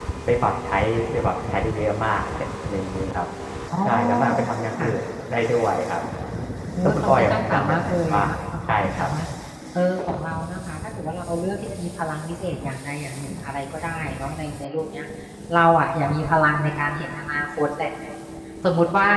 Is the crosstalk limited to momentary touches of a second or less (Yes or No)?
No